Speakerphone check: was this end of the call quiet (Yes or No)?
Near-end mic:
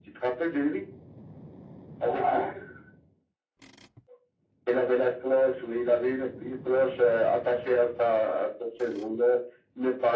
Yes